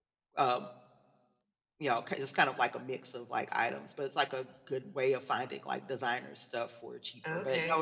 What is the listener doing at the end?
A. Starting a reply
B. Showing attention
A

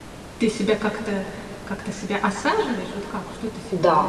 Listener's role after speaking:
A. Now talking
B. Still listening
A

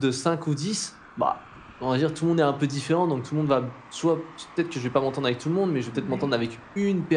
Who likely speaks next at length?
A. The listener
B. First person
B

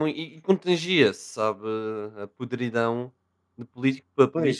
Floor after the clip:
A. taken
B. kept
A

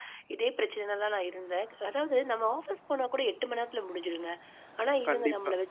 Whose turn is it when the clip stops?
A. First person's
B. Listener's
A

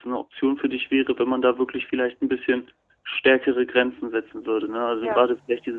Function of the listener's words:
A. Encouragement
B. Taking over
A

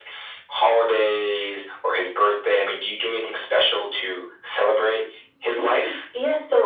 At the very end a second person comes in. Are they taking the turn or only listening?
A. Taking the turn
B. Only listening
A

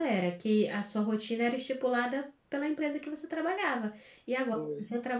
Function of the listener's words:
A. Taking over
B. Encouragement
B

